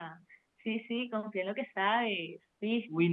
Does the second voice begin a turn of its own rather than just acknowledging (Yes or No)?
Yes